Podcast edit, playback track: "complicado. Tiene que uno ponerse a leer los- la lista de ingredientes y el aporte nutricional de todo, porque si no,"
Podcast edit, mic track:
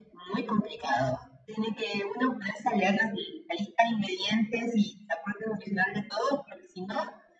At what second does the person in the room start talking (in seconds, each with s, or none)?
none